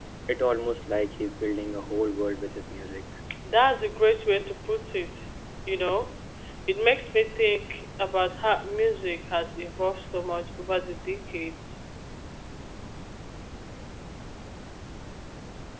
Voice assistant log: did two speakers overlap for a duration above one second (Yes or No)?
No